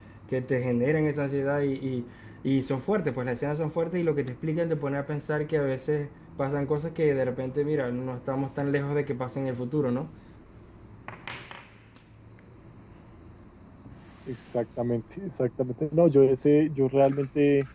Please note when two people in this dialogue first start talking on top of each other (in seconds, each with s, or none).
none